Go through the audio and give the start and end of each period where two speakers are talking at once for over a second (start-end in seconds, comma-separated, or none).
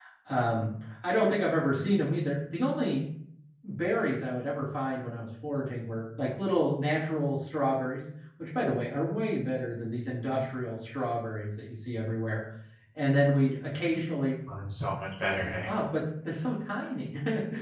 none